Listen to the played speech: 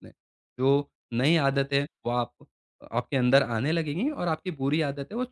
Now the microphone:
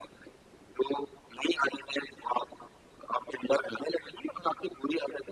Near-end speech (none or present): none